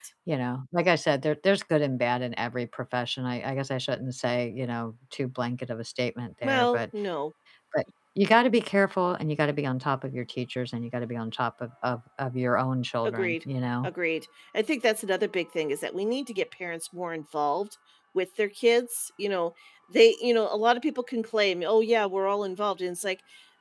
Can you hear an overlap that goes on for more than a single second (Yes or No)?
No